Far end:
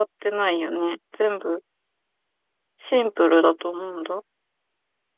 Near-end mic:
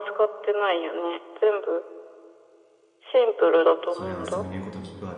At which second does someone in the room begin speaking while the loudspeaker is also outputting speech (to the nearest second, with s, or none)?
4 s